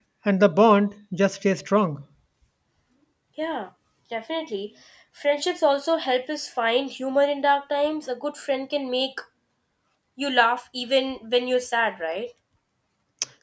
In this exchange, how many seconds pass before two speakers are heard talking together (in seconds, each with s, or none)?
none